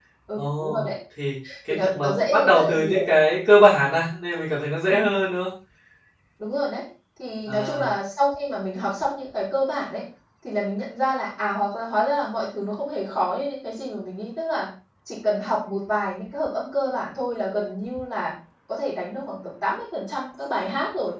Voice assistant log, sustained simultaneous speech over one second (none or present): present